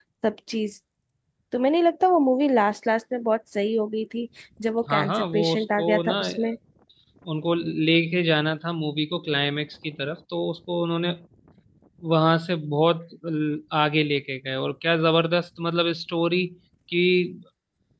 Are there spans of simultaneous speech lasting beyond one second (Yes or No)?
Yes